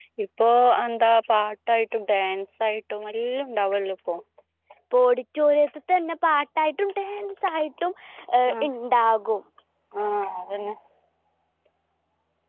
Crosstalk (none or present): none